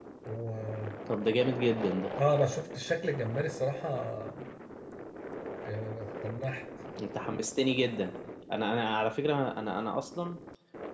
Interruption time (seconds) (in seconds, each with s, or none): none